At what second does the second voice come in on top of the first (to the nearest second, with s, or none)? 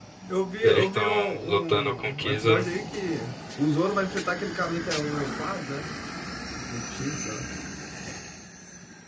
1 s